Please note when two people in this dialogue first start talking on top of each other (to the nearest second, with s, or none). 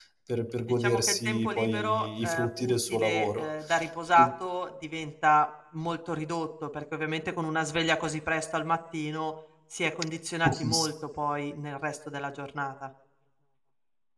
1 s